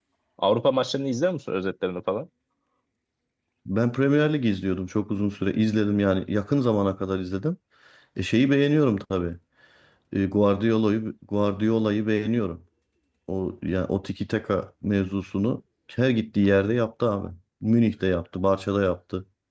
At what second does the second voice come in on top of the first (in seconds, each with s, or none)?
none